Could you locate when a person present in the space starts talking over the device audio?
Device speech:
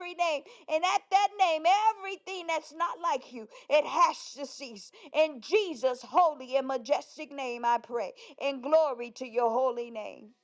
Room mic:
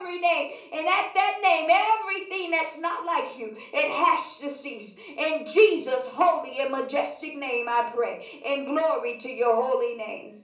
none

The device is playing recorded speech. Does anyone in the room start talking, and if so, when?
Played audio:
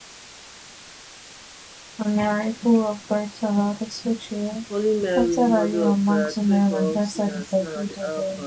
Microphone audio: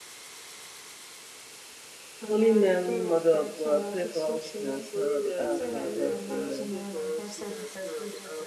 2.3 s

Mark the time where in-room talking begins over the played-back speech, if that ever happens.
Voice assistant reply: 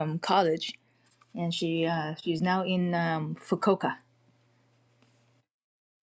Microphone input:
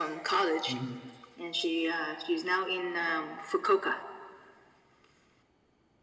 0.7 s

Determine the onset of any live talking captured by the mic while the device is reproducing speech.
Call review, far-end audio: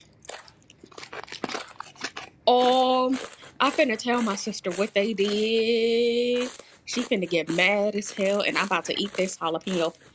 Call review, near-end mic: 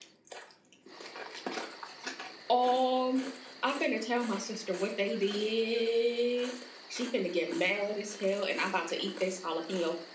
none

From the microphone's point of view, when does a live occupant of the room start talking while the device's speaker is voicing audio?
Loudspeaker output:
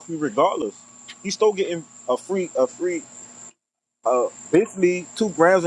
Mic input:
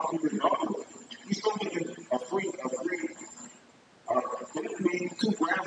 none

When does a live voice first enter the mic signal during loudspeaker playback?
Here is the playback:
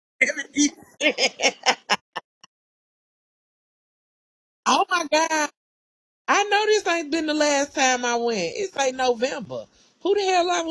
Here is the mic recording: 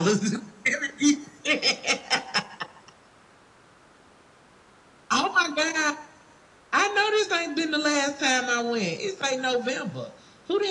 none

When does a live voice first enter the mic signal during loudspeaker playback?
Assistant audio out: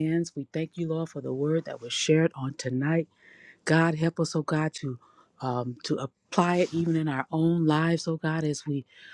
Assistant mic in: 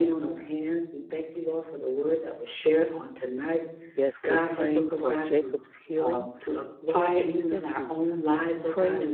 3.9 s

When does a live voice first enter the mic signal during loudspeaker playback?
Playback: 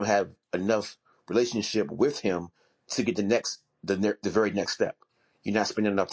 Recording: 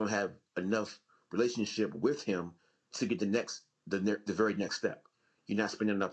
none

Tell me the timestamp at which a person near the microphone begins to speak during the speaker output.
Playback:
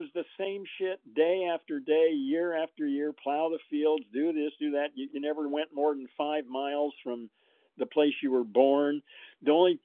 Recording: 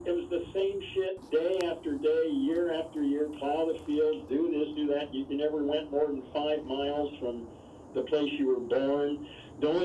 none

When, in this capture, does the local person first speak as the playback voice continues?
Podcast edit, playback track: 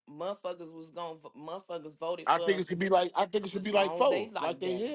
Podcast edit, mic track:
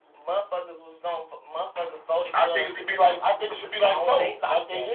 none

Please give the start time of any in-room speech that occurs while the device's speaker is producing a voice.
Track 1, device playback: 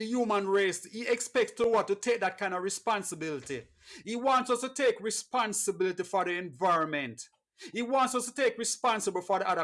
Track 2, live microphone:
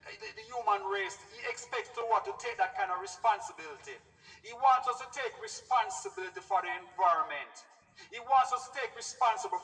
none

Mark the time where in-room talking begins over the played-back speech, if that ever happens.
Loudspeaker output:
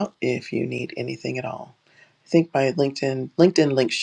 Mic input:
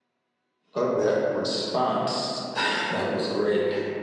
0.7 s

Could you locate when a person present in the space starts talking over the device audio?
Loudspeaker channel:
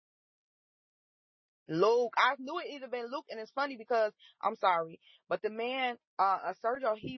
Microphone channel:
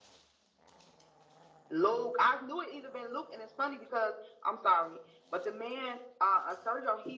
none

